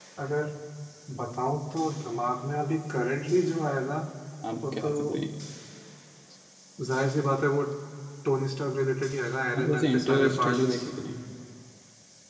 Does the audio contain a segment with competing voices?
Yes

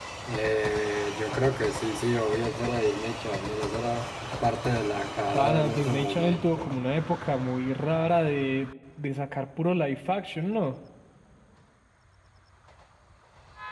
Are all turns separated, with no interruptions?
No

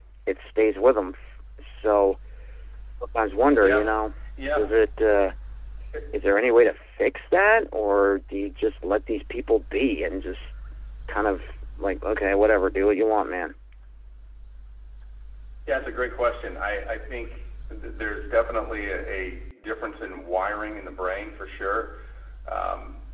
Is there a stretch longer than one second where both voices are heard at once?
No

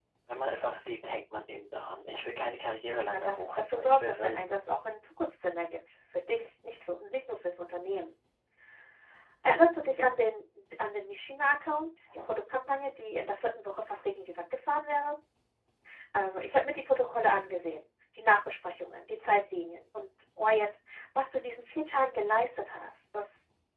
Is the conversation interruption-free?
No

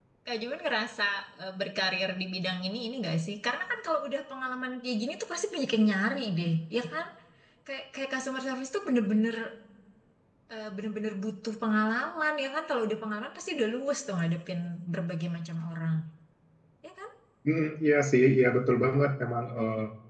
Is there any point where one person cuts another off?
No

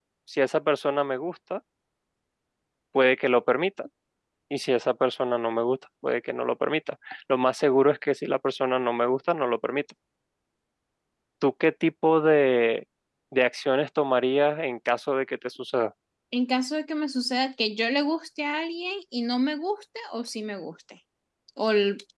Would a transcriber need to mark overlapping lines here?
No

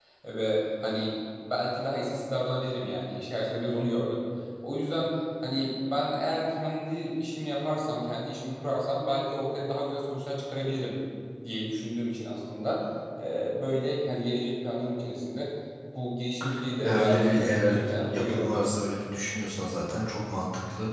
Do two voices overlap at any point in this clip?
Yes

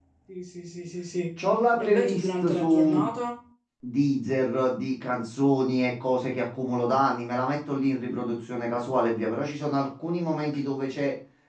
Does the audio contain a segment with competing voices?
Yes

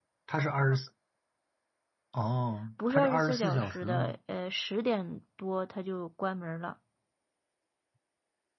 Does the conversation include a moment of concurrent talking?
Yes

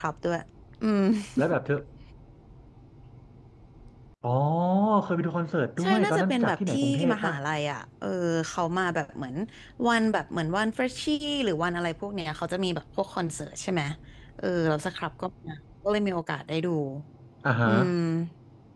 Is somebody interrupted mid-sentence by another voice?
Yes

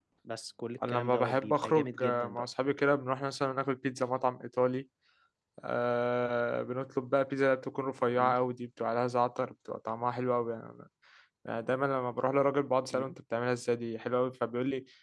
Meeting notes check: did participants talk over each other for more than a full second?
Yes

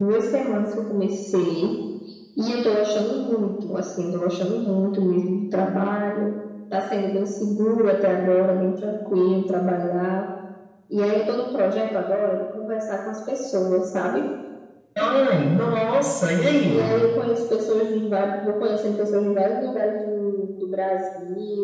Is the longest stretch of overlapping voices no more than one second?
Yes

